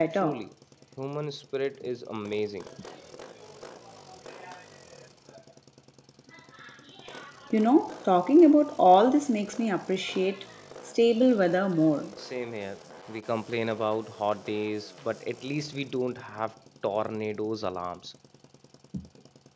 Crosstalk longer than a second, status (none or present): none